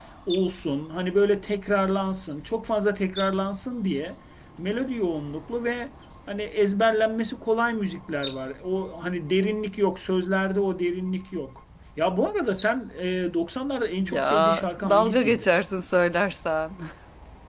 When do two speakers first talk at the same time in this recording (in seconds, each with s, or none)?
14.0 s